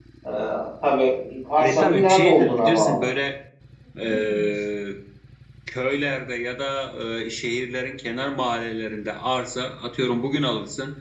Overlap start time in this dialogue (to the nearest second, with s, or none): 2 s